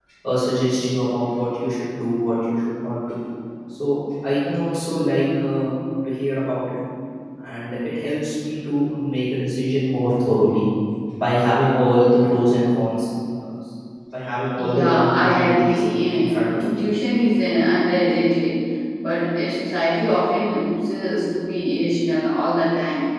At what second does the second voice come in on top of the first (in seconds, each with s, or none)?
14.6 s